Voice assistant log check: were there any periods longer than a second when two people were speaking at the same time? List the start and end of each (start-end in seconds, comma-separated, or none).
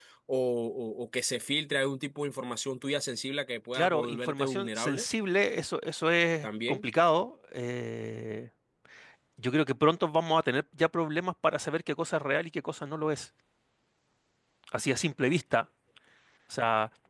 3.7-5.0